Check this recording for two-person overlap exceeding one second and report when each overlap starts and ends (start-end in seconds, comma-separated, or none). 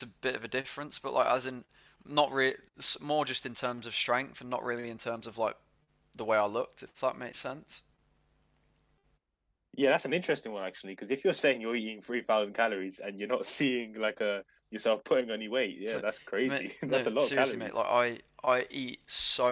16.4-17.8